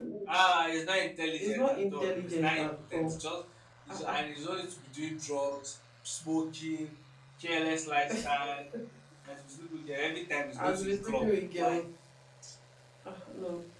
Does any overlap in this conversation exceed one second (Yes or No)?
Yes